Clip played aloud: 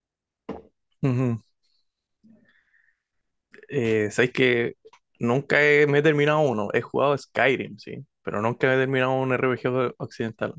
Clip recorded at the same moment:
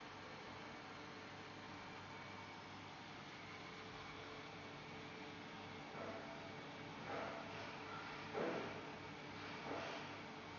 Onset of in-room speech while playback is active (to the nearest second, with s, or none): none